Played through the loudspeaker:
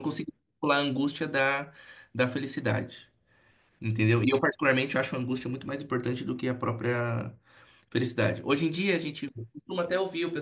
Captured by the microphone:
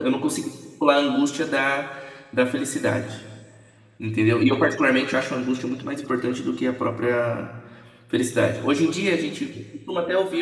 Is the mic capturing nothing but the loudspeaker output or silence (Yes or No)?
Yes